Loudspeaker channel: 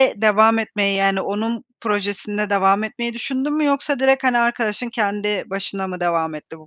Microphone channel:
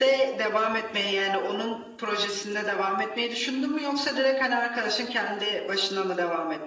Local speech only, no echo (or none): none